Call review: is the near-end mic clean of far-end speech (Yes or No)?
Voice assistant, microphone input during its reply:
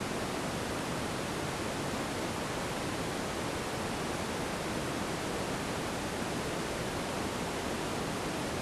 Yes